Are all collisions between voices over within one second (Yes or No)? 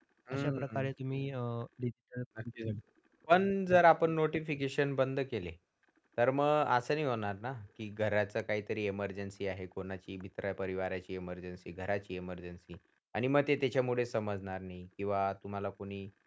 Yes